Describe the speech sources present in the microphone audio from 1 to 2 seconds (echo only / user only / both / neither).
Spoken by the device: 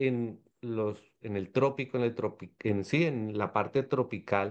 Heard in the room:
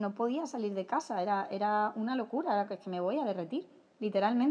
user only